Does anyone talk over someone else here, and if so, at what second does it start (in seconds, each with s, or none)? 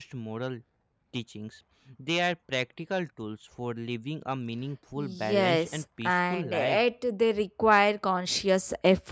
5.0 s